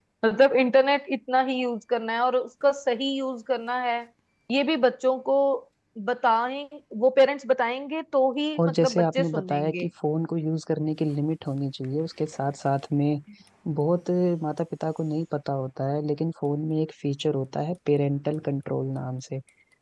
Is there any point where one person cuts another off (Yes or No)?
Yes